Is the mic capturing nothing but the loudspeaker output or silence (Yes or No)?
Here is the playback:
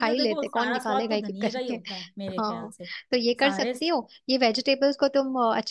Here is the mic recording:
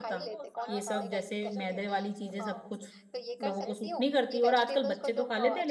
No